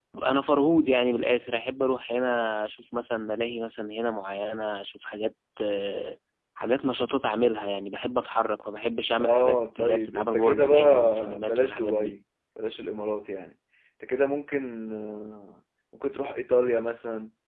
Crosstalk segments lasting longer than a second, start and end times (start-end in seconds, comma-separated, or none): 9.2-12.1